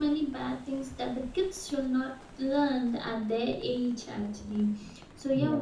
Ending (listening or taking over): listening